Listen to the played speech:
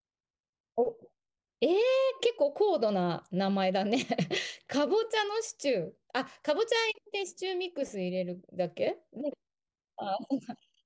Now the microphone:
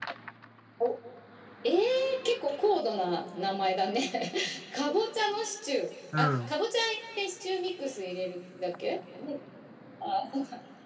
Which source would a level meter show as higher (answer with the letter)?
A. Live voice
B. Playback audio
A